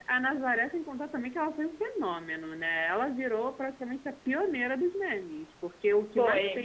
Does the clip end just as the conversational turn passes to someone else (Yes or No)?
No